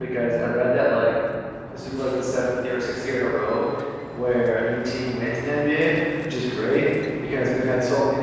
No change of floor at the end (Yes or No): Yes